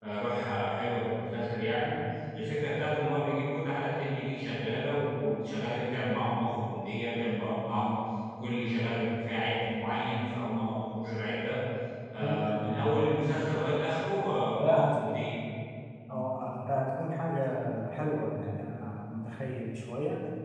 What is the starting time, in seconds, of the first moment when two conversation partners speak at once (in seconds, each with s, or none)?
12.2 s